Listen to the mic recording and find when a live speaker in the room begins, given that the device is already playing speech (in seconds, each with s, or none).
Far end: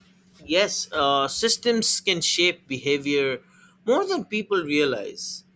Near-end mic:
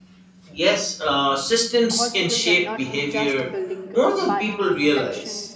1.9 s